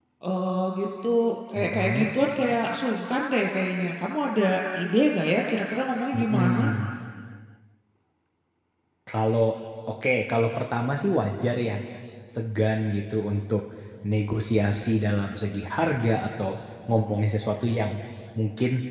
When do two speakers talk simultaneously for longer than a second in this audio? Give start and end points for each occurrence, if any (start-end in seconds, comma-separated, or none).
none